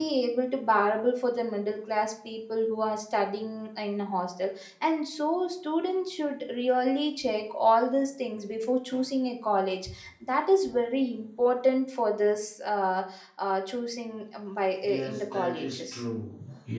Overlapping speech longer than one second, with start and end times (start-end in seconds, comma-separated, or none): 14.8-16.0